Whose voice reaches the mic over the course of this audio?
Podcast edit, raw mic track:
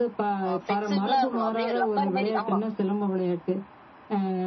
both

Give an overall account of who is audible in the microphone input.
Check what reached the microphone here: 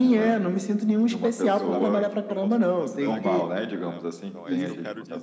both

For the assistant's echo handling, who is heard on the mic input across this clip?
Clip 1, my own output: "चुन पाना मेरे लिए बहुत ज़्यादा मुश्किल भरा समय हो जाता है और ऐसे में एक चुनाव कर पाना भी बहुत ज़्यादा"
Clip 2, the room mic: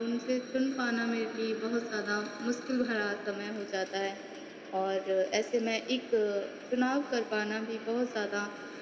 echo only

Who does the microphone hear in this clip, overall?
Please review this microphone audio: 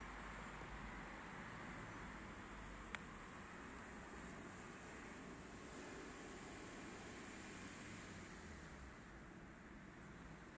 neither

